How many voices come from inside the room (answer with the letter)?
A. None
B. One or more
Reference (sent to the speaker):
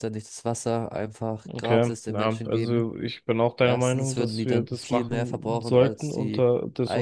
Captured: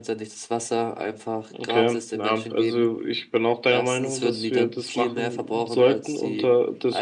A